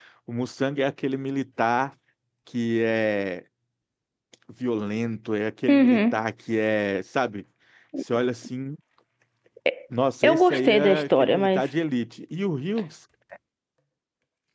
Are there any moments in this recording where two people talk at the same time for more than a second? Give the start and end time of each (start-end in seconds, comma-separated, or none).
10.2-11.7